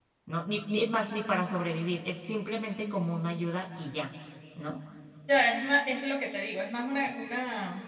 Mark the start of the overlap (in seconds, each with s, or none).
none